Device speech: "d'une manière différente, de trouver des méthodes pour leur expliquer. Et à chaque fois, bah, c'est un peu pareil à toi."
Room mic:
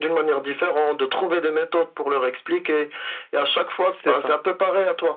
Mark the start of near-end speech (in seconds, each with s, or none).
3.8 s